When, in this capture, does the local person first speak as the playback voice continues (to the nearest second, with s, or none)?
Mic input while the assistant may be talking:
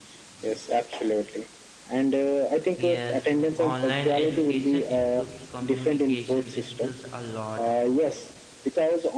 3 s